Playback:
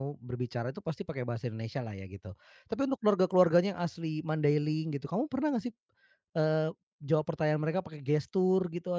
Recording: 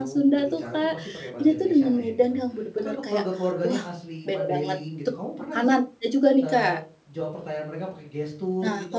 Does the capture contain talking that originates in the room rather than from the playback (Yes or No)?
Yes